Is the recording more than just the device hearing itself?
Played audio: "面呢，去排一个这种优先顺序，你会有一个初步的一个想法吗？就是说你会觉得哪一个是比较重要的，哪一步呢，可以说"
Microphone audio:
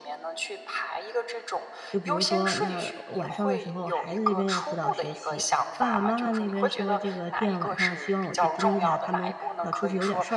Yes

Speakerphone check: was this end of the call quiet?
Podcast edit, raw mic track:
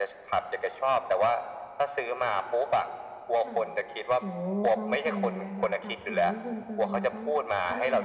No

